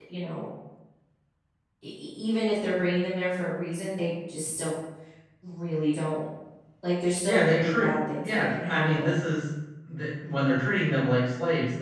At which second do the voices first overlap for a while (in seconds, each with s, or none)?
7.2 s